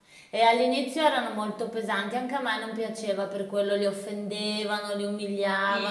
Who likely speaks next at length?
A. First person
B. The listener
A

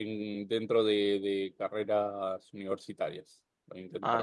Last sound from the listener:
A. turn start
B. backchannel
A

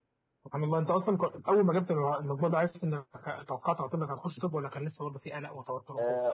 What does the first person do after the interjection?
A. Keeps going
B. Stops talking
B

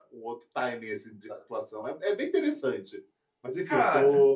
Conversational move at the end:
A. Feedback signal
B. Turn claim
A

